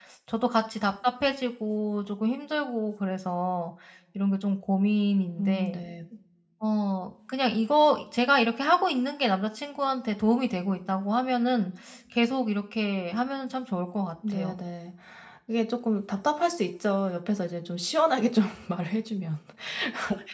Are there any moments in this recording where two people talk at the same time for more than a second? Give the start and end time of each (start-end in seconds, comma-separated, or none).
none